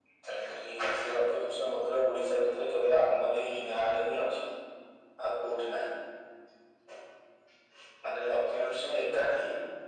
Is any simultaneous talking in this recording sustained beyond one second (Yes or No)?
No